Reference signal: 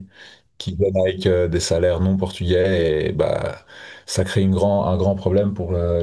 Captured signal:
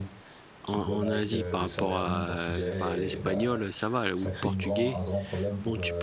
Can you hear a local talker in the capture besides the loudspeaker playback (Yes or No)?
Yes